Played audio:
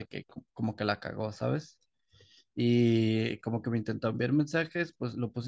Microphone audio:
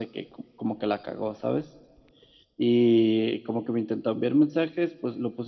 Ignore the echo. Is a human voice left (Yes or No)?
No